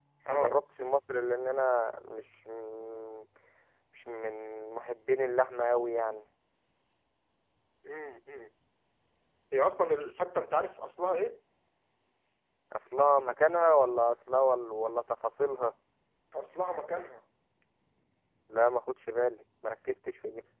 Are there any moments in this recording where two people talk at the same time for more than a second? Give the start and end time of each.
none

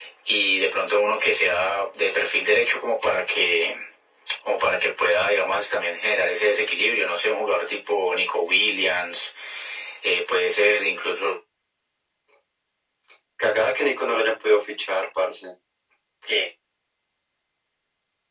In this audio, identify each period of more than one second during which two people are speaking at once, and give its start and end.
none

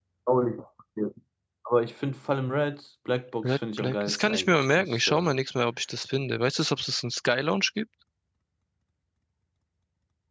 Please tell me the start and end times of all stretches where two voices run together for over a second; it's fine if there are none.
3.4-5.3

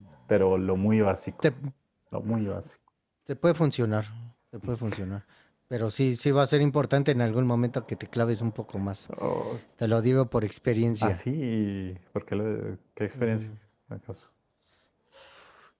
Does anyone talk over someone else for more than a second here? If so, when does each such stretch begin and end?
none

